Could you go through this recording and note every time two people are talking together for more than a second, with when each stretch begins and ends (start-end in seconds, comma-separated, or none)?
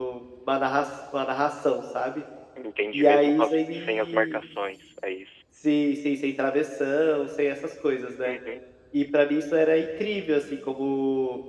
2.9-4.4